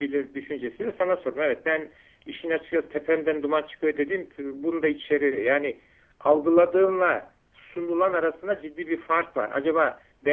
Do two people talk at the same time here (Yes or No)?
No